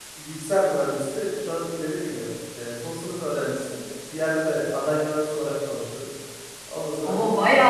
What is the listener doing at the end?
taking over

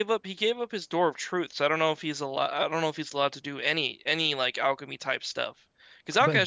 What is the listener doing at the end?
listening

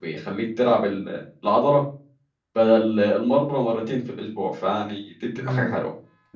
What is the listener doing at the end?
taking over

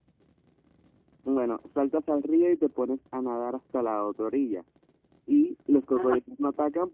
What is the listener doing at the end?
listening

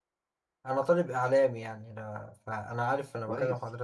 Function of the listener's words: taking over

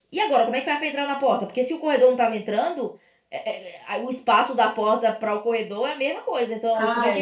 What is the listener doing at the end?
taking over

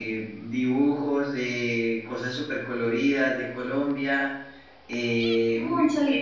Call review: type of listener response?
taking over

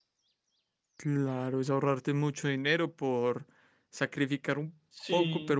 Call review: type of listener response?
listening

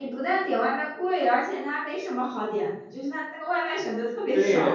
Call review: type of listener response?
taking over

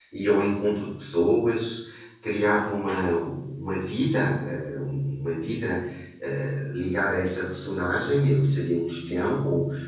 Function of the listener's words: listening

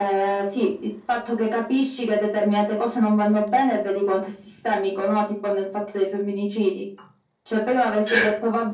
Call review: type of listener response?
listening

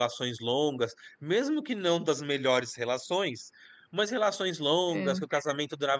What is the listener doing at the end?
listening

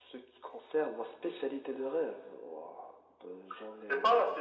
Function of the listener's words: taking over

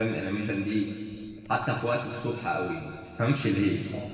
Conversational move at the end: listening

